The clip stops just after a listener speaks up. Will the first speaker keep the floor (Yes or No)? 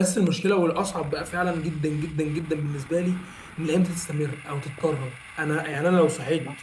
Yes